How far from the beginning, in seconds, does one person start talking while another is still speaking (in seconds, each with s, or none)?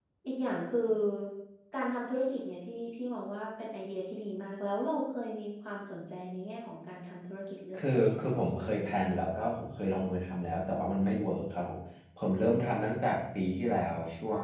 7.7 s